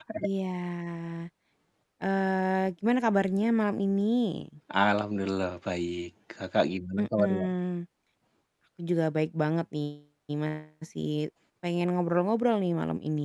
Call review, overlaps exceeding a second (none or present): none